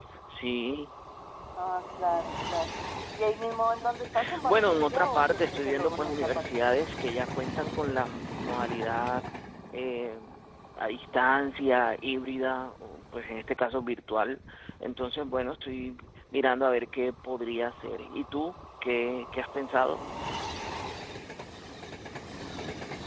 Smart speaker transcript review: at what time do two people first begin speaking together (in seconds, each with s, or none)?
4.4 s